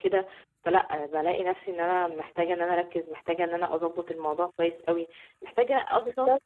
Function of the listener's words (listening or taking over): listening